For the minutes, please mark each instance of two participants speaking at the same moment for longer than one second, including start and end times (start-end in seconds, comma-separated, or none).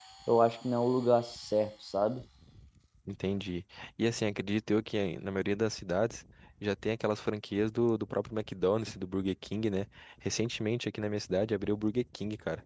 none